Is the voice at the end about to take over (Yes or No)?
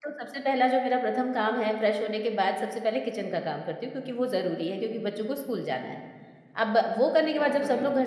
No